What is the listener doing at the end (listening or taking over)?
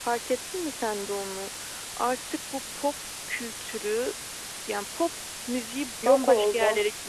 listening